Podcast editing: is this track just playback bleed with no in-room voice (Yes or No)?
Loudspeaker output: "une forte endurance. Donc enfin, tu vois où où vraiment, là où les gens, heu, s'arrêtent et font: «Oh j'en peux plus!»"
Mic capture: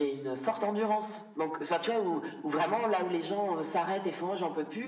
Yes